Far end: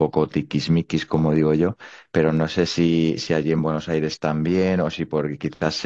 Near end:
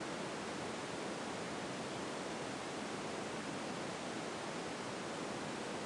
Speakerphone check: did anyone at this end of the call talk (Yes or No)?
No